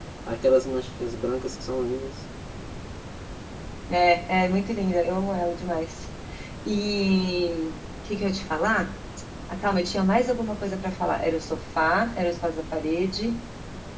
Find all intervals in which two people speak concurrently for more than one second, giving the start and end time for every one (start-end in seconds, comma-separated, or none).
none